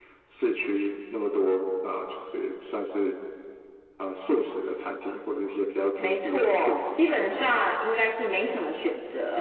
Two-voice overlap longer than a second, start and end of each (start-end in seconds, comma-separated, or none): 6.0-7.4